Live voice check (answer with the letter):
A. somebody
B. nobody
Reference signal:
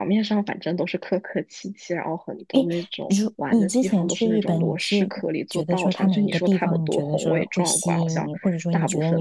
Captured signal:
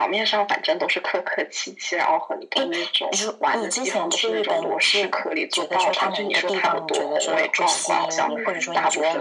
A